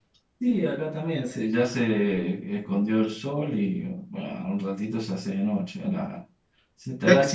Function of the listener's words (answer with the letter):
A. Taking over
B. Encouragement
B